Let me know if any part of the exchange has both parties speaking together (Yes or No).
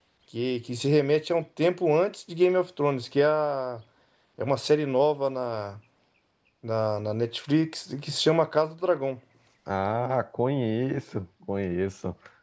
No